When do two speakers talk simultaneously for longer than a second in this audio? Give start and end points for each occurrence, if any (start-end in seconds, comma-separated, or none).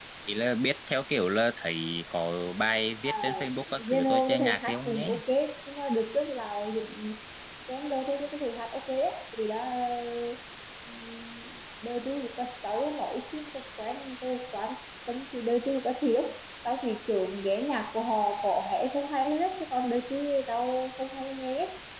3.9-5.1